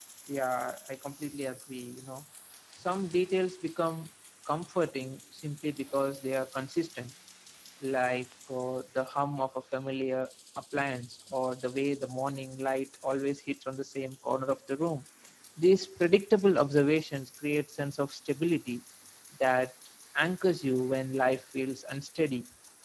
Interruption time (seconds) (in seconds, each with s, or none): none